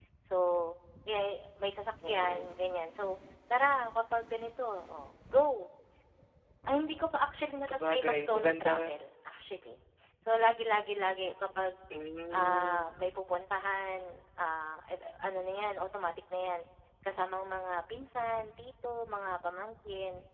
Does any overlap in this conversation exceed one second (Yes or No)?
Yes